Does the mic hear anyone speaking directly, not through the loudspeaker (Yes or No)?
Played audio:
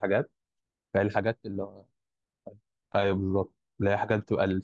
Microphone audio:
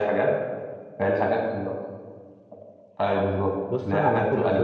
Yes